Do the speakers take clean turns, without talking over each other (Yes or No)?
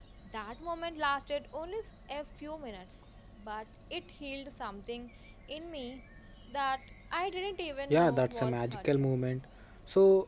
No